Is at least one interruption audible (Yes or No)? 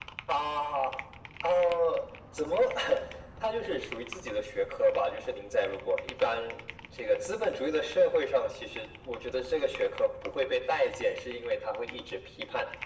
No